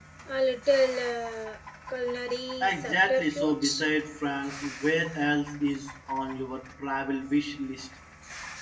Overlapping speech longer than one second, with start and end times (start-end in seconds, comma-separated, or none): 2.6-3.9